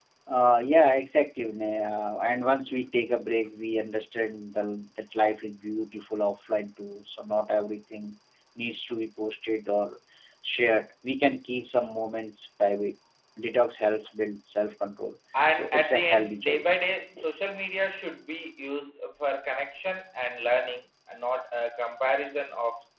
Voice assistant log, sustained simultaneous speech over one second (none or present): present